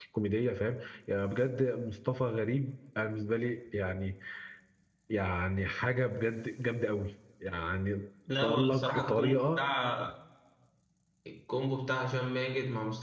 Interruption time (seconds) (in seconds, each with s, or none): 8.4 s